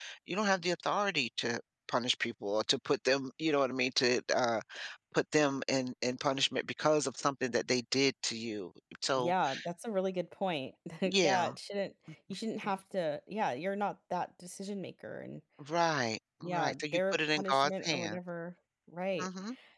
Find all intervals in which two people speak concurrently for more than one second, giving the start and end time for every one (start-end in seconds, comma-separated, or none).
16.4-18.2